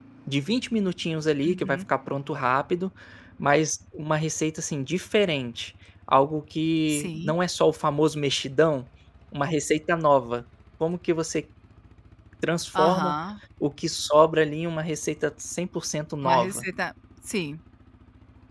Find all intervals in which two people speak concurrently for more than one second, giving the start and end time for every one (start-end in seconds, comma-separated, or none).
none